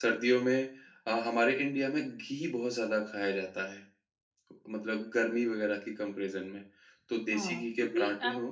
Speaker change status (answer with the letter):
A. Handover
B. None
A